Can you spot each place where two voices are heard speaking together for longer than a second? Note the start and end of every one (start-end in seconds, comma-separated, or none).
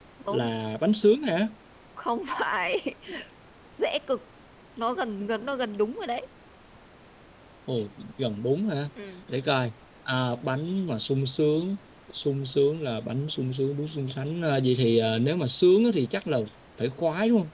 none